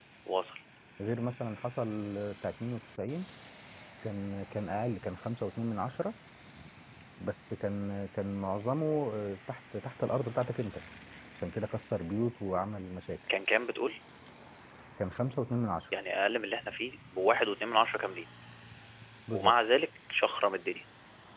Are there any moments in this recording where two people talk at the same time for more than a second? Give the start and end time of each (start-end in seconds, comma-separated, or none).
none